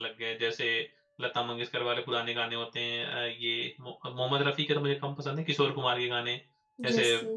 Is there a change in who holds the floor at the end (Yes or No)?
No